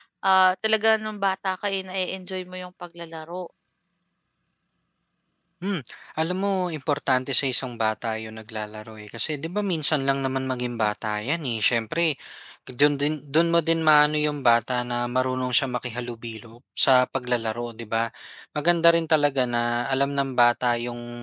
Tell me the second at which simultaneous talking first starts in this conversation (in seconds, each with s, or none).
none